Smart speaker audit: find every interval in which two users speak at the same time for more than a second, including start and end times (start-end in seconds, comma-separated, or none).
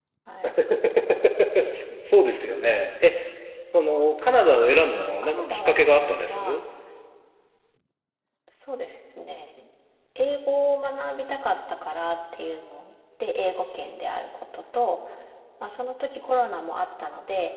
4.9-6.6